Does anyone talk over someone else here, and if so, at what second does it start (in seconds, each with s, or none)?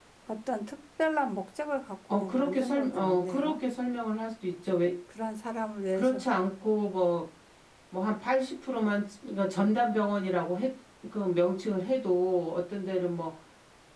2.1 s